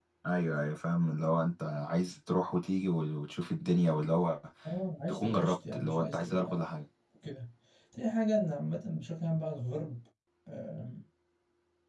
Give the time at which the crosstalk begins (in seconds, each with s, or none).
5.1 s